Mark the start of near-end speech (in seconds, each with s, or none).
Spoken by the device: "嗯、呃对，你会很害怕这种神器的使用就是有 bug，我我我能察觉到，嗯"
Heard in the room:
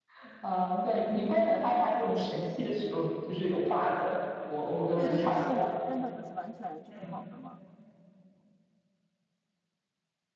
4.9 s